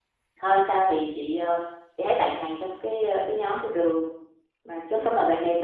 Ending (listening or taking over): listening